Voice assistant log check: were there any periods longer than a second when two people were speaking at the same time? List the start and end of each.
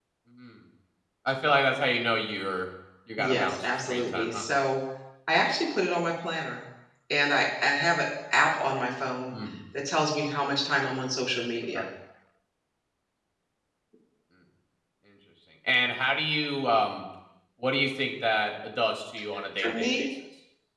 3.2-4.4

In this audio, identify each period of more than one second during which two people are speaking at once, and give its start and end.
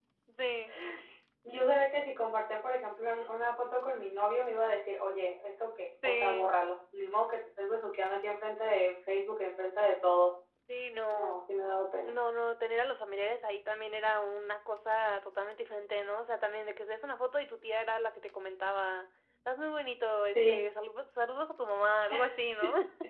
none

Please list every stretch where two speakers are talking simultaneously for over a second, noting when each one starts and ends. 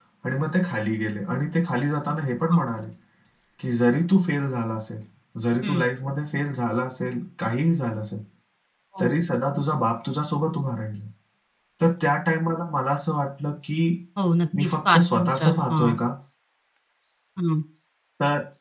14.6-16.0

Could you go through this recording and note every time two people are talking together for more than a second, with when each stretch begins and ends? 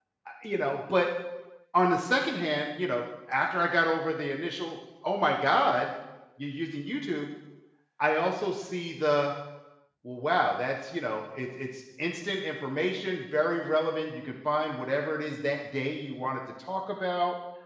none

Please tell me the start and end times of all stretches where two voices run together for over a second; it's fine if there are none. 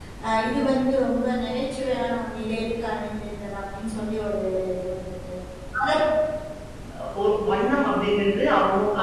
none

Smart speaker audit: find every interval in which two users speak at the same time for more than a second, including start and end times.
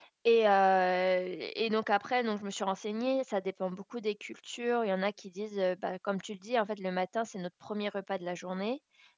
none

